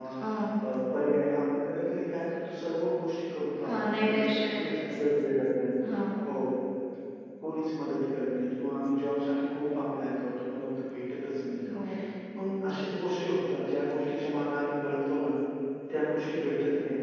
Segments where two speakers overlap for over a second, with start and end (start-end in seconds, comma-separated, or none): 3.7-5.2